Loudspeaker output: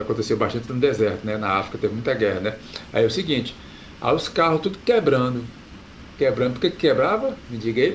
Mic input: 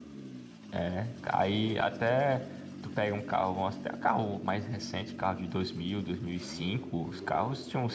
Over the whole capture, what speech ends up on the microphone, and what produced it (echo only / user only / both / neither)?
user only